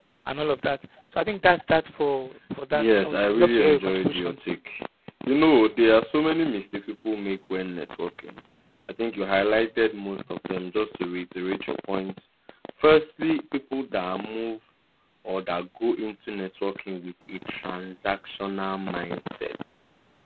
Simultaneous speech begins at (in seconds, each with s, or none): 2.7 s